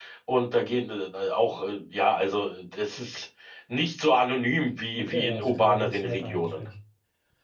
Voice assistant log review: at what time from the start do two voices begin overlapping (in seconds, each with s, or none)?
5.0 s